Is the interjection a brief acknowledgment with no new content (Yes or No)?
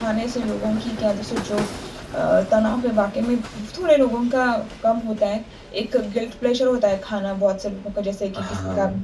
Yes